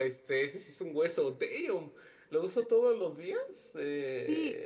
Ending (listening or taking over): taking over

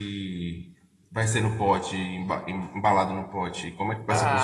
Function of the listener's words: taking over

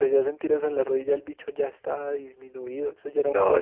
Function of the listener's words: taking over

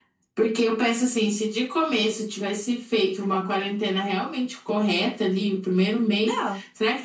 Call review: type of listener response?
listening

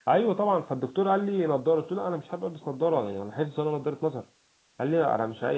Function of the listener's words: listening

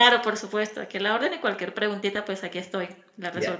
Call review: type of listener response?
taking over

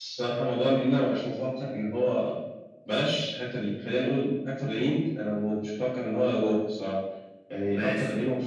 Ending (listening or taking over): listening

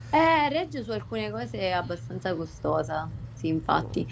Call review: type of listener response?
listening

